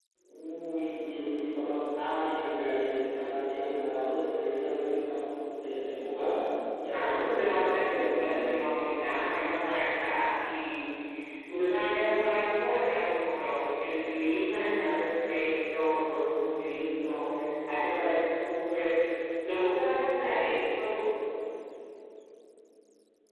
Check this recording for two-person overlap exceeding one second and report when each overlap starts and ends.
6.9-8.5

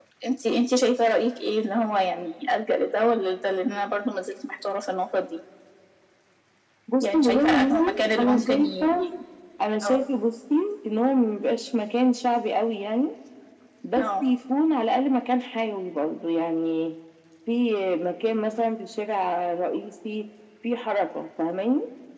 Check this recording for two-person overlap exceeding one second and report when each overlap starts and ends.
7.0-9.0

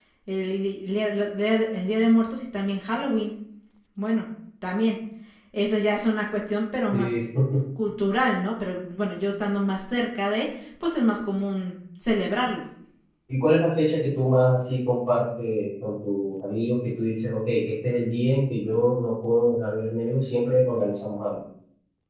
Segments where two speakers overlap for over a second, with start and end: none

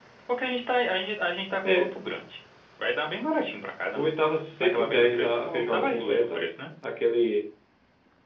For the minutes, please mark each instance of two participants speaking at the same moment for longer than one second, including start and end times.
4.6-6.4

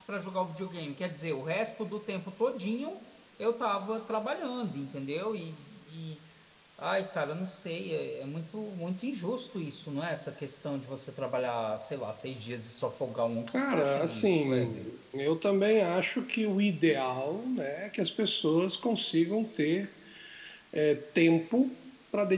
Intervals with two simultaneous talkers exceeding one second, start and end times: 13.5-14.9

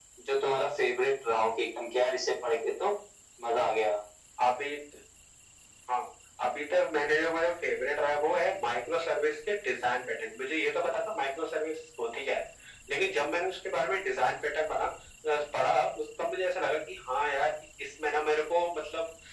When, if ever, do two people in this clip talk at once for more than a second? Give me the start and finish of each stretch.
none

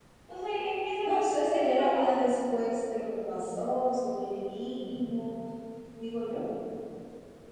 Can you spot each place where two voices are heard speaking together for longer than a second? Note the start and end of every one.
1.0-2.3

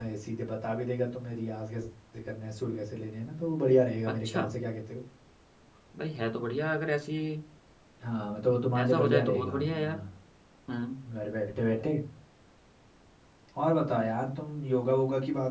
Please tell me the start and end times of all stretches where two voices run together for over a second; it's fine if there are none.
8.8-10.0

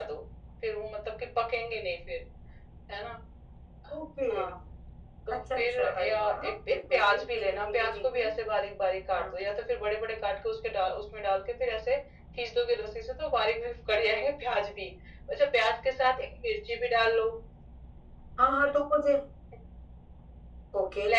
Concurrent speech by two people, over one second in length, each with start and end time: 5.3-8.3

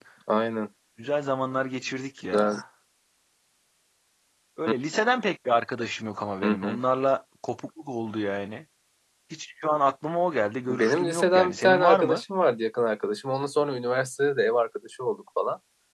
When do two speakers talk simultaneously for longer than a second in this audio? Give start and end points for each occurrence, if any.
10.7-12.2

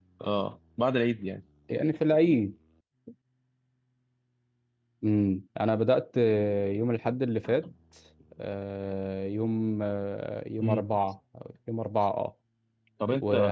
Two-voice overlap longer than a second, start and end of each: none

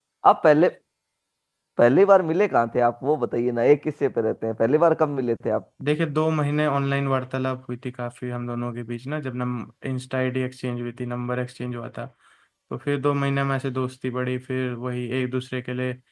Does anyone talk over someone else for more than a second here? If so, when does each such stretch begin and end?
none

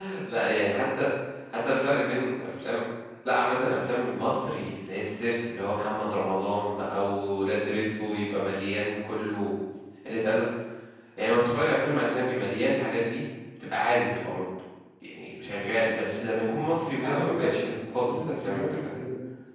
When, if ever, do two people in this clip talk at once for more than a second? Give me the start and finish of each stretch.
17.0-19.0

